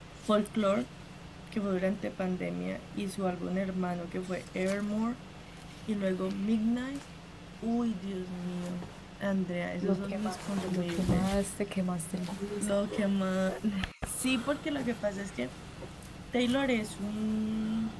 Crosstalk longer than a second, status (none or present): present